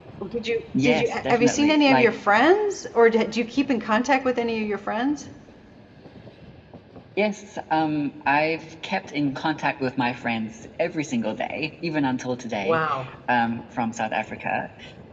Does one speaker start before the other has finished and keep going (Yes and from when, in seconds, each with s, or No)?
Yes, from 0.8 s